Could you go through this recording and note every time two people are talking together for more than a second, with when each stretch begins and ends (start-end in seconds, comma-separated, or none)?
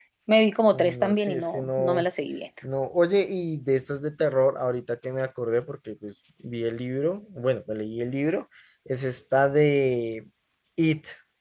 0.7-2.0